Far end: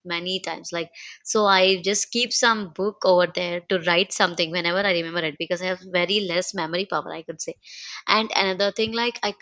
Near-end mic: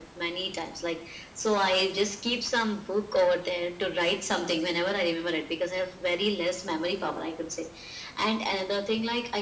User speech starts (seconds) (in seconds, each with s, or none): none